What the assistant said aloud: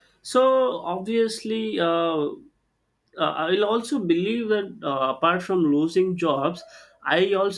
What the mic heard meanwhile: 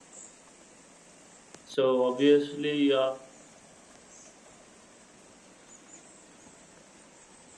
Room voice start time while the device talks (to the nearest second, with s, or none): 2 s